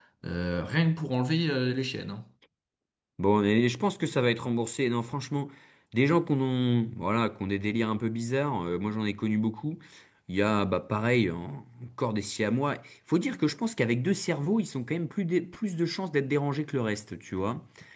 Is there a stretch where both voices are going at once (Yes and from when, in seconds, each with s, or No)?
No